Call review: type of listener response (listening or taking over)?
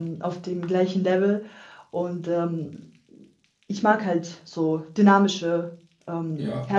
taking over